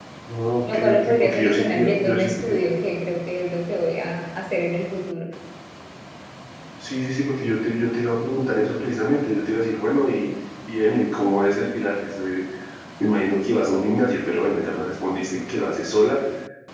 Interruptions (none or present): present